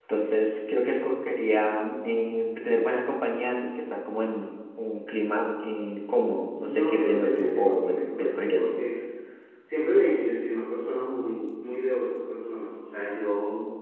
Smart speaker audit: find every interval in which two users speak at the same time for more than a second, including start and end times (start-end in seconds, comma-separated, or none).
6.6-8.8